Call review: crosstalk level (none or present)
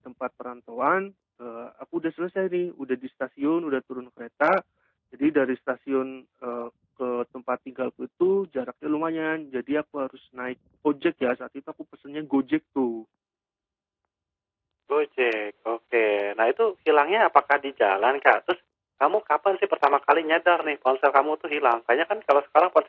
none